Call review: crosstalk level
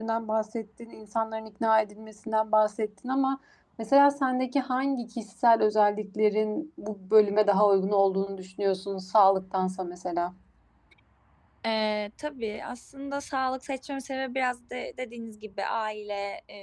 none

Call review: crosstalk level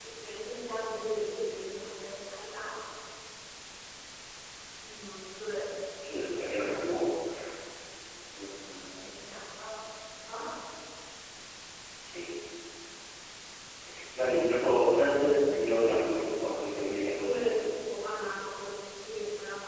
present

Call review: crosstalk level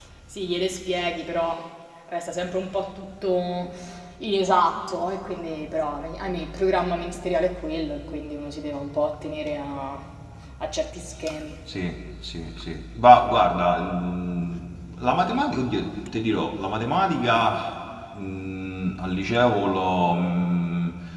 none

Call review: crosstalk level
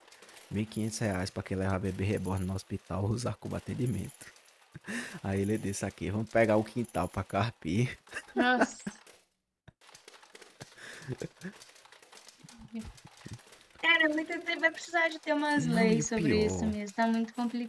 present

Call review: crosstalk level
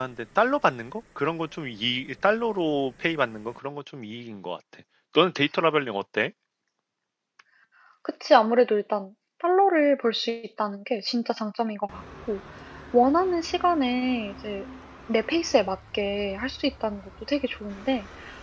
none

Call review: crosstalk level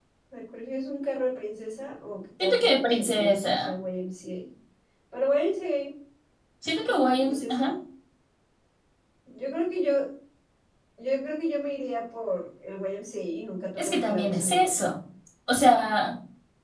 present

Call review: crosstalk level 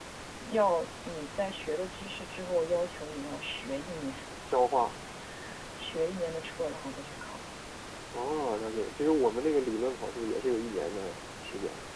none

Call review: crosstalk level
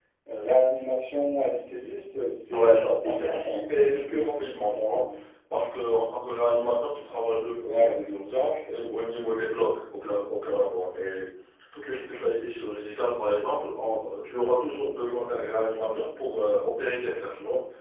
present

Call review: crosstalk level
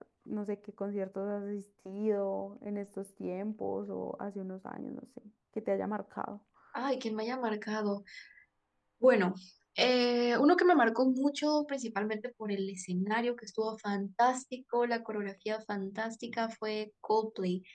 none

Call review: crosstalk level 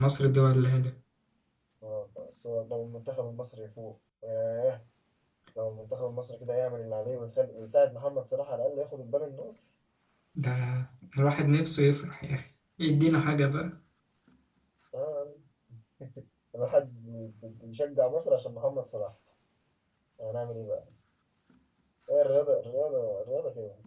none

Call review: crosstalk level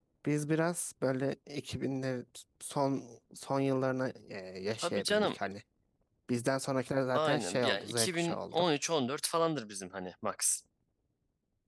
present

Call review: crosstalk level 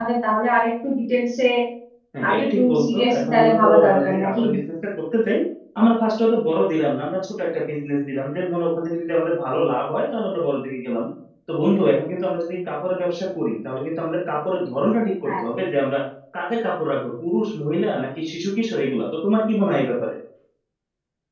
present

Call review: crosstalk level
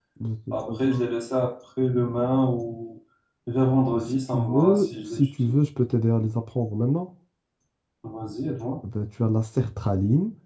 present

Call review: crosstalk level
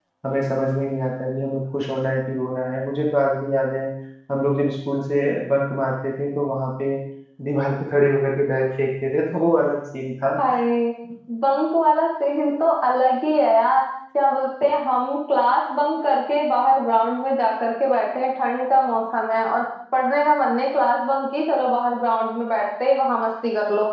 none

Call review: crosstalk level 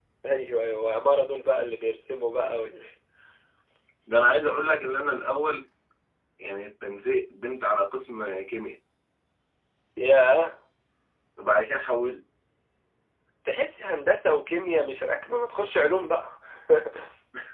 none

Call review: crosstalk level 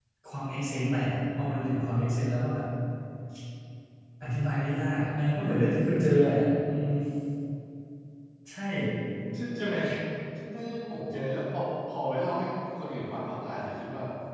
none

